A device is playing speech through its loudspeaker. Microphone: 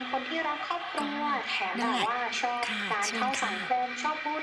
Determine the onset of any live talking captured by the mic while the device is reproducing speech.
1.0 s

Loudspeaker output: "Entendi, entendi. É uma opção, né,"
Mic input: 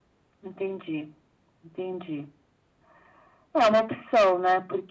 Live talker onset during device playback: none

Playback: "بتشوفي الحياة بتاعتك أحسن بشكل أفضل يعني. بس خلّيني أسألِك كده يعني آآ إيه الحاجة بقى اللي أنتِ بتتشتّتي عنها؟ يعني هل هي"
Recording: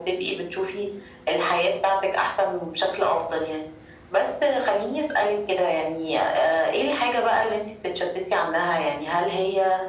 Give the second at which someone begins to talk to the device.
none

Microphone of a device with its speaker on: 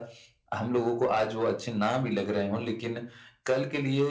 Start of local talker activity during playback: none

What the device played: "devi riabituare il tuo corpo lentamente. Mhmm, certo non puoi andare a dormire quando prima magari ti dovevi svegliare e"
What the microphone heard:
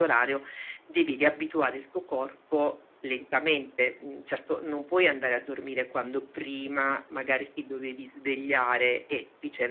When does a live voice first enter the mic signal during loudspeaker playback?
none

